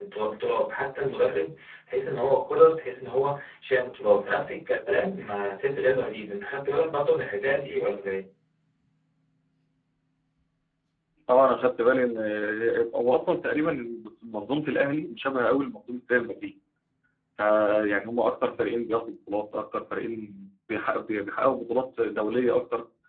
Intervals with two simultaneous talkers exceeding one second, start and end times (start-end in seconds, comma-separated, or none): none